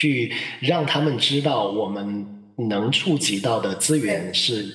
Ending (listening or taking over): listening